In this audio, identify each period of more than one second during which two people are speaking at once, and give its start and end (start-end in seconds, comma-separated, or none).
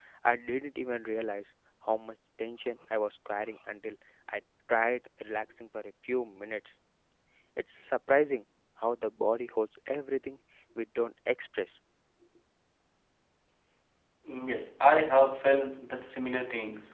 none